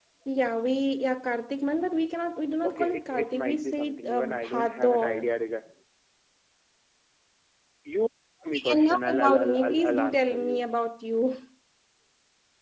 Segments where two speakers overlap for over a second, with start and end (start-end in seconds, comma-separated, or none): 2.6-5.3, 8.5-10.6